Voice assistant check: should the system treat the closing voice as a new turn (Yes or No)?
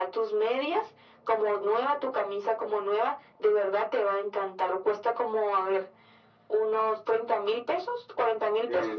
Yes